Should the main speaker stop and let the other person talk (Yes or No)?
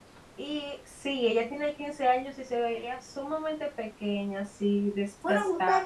Yes